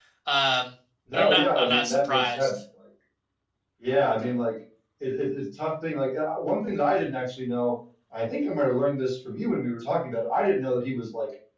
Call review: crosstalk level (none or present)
present